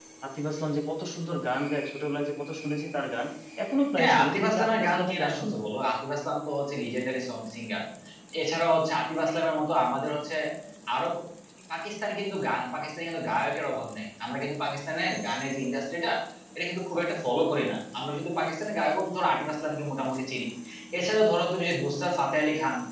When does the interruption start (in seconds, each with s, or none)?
4.0 s